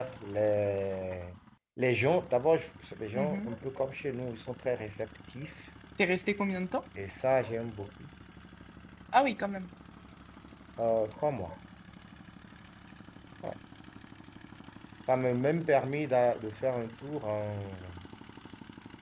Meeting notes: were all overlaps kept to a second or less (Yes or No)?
Yes